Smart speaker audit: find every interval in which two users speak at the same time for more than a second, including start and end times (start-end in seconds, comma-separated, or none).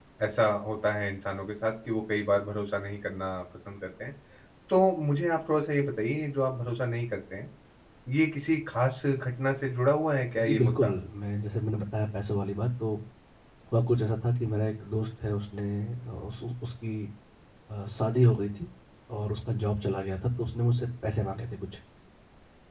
none